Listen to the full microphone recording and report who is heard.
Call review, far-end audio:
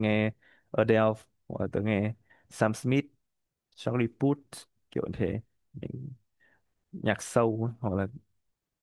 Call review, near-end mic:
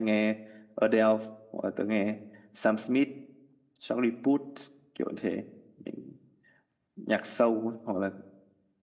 echo only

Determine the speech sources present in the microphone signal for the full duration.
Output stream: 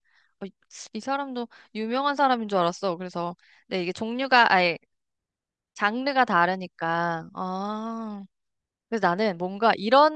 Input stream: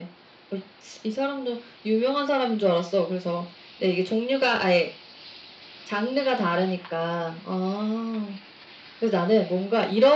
echo only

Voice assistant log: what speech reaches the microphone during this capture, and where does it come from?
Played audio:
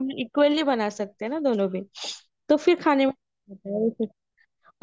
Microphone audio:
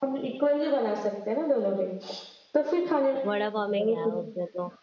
both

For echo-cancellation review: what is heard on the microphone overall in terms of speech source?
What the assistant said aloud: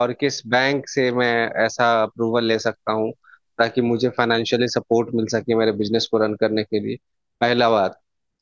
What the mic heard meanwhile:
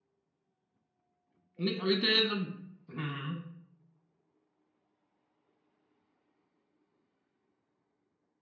user only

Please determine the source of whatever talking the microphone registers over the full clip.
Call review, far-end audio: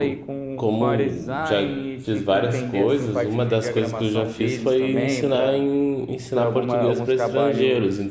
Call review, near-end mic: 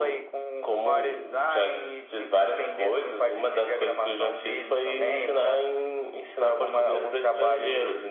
echo only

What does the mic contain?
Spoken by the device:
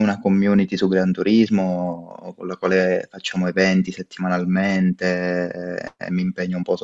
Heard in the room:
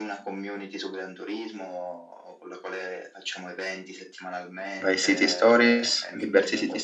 both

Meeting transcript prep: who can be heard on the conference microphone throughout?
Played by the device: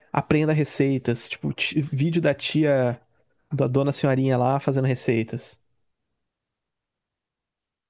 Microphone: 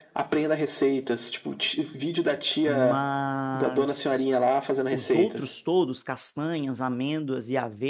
both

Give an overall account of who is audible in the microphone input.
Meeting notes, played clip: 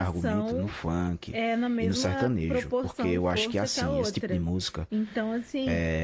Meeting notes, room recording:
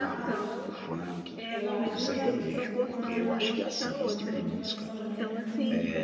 both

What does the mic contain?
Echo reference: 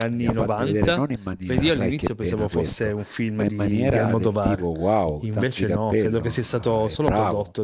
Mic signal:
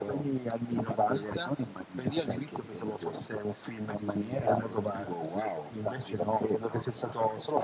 echo only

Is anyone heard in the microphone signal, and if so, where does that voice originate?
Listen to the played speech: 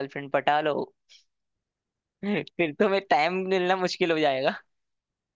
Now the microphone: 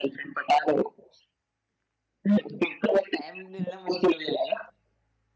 echo only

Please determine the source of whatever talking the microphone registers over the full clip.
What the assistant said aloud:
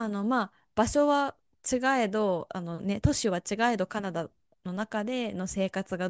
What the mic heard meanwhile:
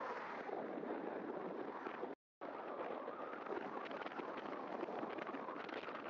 neither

